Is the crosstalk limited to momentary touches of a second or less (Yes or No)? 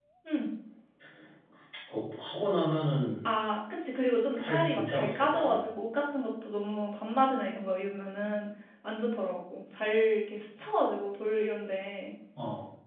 No